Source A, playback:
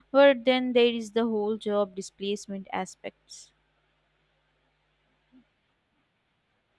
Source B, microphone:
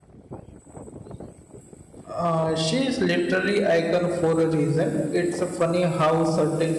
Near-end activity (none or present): present